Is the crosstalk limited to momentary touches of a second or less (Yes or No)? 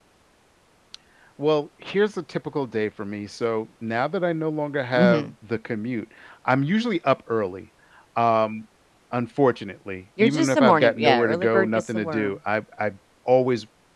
No